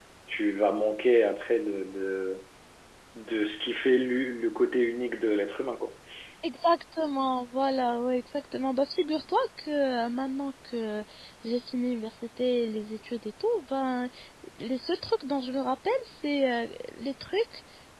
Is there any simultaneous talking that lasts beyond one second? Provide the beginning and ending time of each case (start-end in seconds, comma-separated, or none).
none